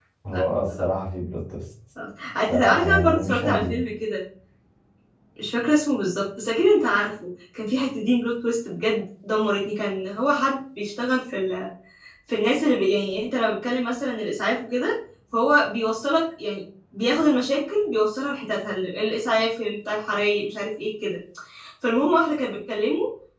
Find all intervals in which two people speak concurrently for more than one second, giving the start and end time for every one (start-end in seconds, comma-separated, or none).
2.5-3.8